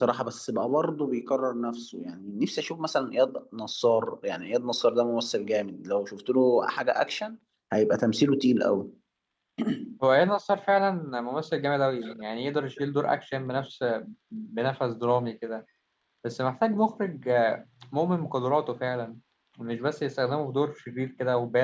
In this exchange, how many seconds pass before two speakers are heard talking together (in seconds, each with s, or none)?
none